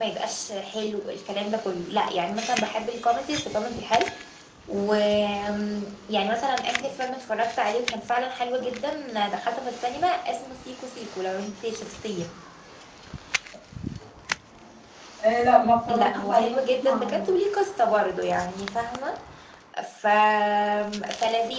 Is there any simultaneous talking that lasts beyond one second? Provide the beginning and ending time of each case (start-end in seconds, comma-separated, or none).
15.9-17.2